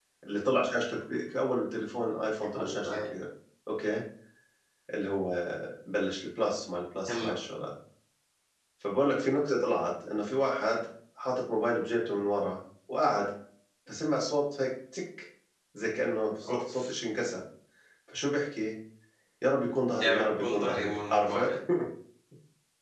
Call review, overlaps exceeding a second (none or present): present